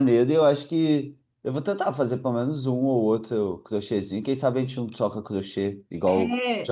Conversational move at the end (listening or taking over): taking over